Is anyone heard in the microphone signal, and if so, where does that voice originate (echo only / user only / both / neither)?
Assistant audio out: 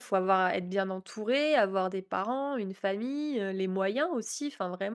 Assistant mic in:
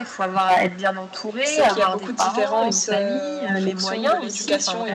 both